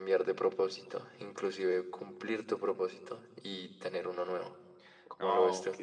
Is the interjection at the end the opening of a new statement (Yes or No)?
Yes